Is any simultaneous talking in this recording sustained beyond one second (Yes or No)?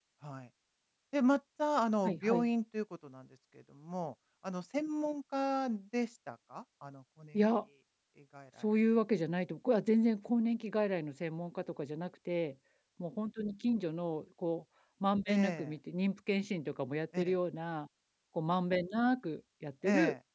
No